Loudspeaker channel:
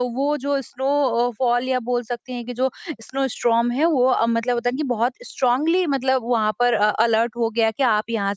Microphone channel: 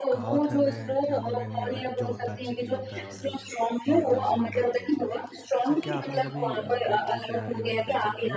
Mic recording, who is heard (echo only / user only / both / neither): both